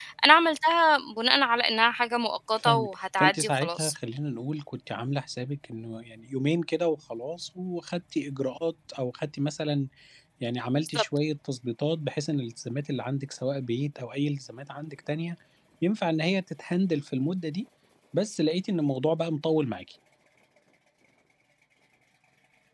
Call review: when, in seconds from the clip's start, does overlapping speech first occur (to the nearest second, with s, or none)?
3 s